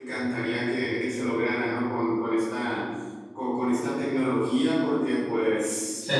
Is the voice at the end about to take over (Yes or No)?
Yes